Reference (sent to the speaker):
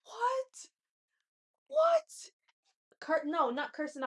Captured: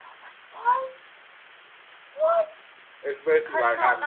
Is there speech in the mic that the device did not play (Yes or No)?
Yes